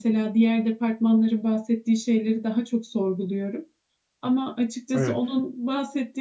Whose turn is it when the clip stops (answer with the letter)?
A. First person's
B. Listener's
A